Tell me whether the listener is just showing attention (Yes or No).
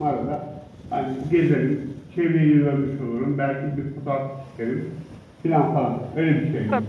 No